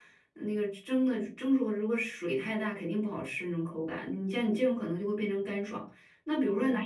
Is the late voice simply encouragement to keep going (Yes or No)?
Yes